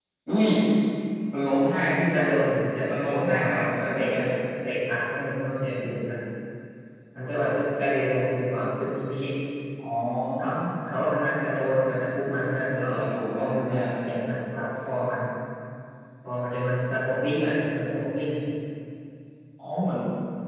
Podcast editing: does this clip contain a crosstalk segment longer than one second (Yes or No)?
Yes